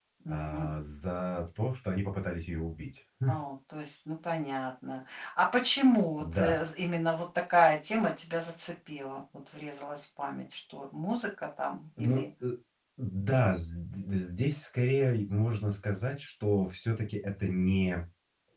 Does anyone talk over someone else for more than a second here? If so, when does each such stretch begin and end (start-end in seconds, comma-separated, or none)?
none